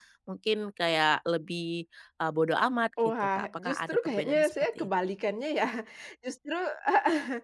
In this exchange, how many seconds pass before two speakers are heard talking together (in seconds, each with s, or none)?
3.0 s